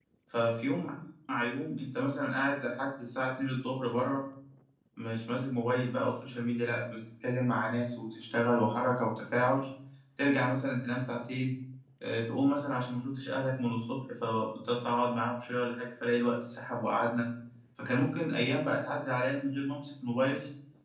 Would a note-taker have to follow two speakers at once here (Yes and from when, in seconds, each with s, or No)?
No